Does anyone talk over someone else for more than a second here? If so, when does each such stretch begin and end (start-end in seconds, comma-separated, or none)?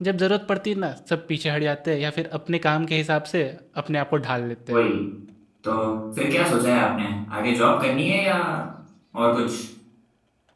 none